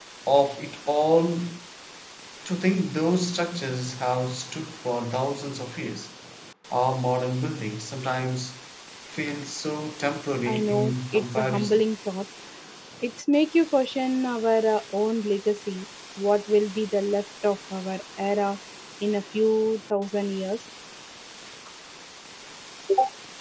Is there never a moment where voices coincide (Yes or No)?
No